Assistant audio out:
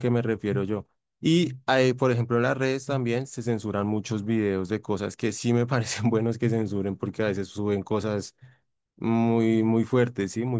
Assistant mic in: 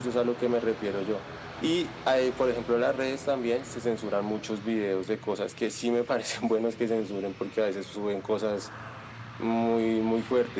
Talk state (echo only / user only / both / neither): echo only